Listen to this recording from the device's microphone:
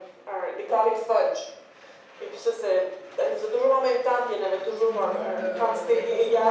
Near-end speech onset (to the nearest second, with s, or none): 5 s